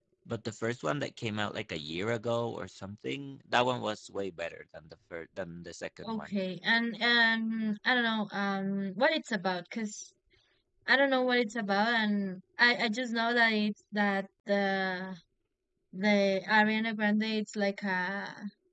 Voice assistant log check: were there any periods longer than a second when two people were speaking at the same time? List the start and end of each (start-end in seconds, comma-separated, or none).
none